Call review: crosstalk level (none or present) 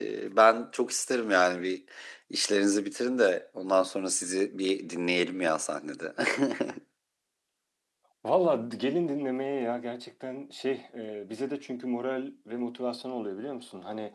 none